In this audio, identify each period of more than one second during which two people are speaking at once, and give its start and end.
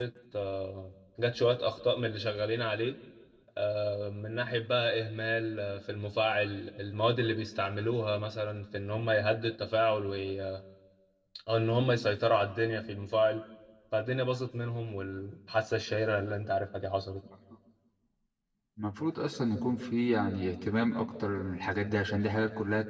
none

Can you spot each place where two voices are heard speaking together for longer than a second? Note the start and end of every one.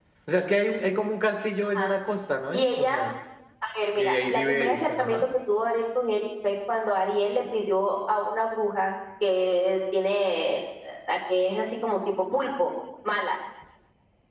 4.0-5.2

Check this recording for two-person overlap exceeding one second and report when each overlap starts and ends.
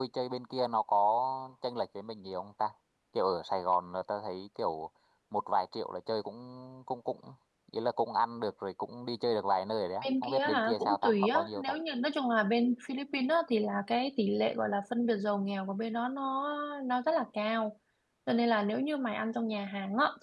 10.2-11.7

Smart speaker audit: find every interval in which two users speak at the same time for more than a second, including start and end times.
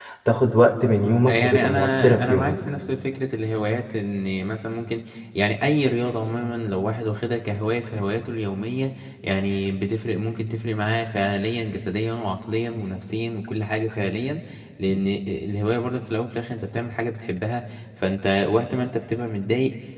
1.3-2.5

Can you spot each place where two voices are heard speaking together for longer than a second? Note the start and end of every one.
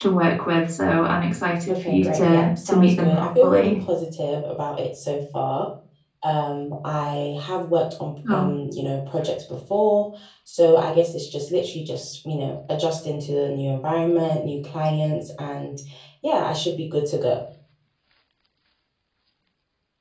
1.7-3.8

